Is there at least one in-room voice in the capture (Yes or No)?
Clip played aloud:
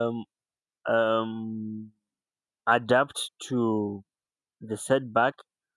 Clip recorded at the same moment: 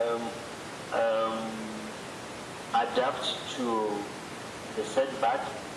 No